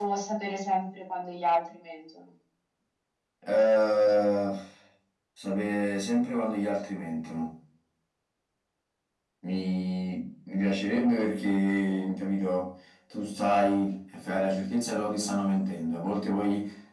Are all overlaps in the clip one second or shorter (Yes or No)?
Yes